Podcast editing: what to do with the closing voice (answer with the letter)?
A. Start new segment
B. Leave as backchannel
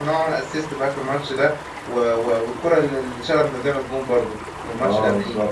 A